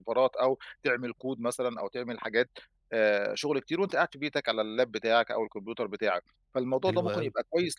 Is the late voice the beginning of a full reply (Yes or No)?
No